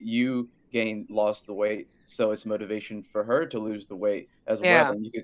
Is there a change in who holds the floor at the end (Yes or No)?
No